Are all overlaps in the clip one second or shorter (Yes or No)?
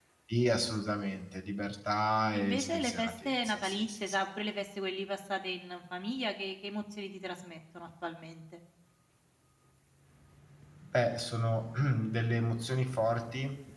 No